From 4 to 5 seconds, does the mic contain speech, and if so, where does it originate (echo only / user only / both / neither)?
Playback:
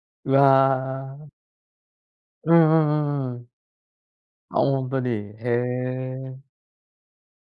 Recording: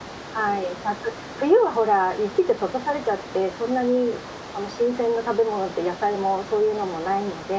user only